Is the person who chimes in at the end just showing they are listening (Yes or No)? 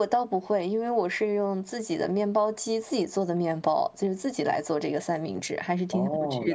No